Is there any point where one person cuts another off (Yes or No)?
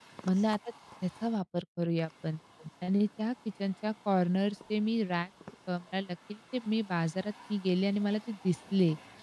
No